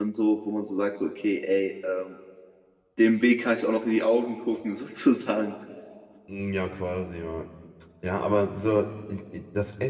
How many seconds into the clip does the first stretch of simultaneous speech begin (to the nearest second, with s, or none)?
none